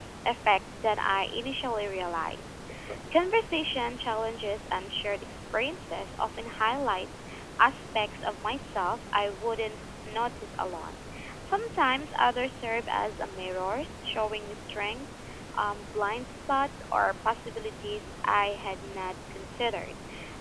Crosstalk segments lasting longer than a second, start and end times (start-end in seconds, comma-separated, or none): none